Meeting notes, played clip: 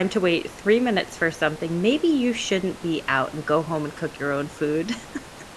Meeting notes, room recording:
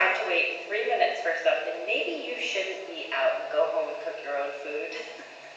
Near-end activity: none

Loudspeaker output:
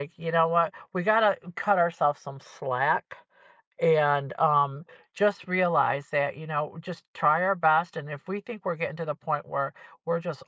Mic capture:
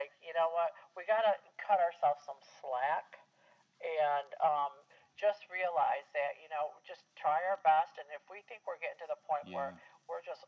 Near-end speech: present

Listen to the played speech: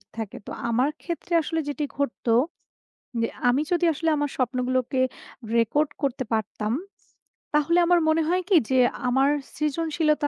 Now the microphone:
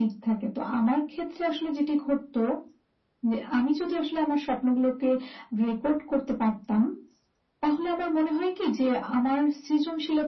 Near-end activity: none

